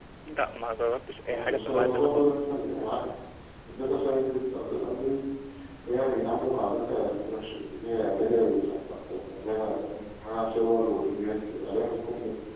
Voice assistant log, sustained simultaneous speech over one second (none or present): present